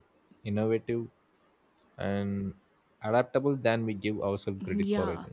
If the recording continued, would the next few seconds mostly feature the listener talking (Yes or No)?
Yes